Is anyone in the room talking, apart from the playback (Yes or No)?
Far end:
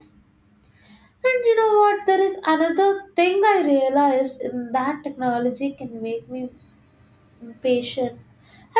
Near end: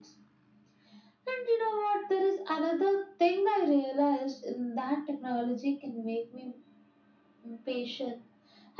No